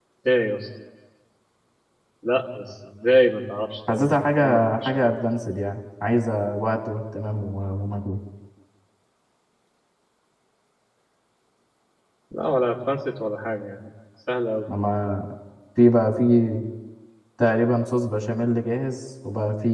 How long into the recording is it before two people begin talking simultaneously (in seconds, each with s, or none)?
3.9 s